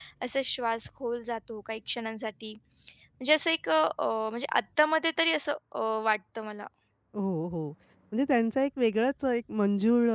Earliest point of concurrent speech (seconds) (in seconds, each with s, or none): none